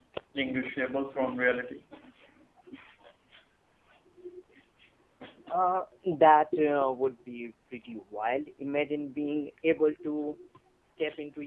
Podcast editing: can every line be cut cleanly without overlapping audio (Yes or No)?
Yes